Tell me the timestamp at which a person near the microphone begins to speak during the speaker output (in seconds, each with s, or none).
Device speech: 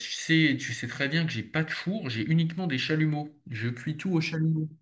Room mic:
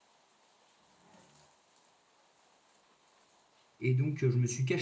3.8 s